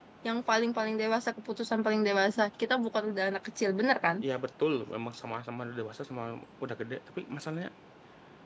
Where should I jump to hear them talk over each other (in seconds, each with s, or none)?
none